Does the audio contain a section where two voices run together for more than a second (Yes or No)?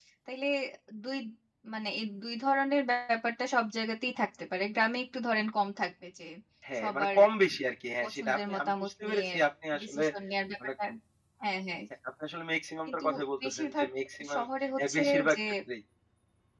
Yes